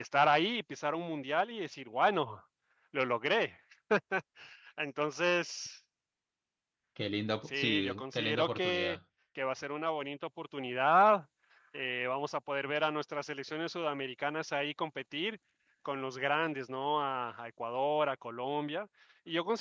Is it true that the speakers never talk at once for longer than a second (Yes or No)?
No